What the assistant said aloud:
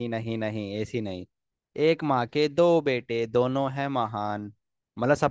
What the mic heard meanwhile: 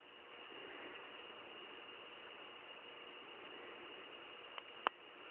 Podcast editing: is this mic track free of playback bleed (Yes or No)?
Yes